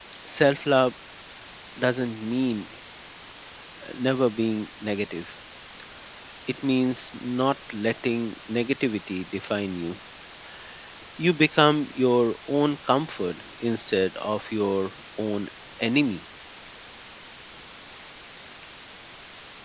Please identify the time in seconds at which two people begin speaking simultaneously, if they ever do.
none

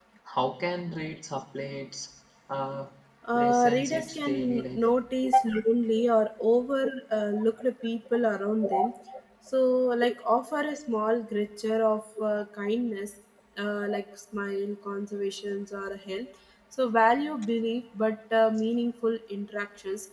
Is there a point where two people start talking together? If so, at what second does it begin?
3 s

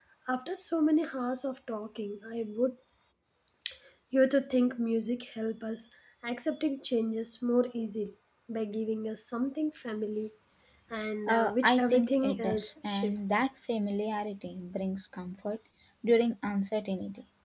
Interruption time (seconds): 11 s

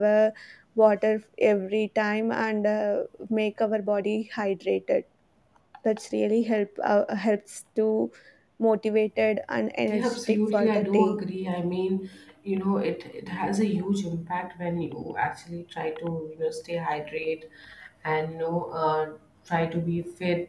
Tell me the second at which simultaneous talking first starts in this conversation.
10 s

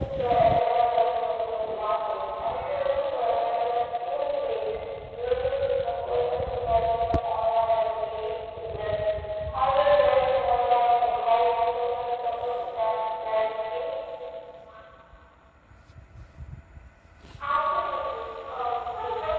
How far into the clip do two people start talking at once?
none

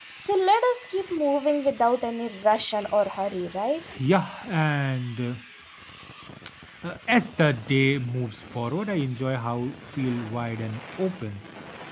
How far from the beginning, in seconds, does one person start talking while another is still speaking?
none

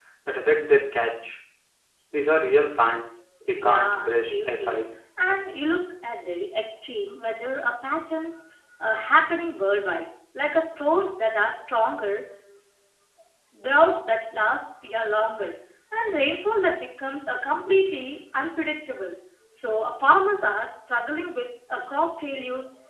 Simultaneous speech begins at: 4 s

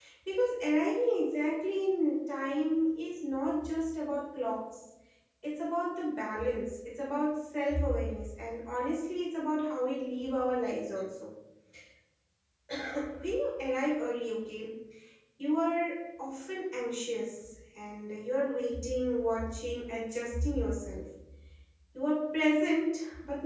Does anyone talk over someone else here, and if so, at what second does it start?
none

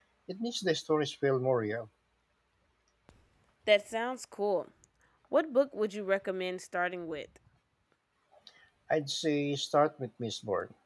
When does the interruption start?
none

